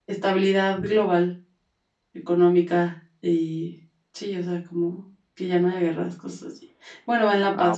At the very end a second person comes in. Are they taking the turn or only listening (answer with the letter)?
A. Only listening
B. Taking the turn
A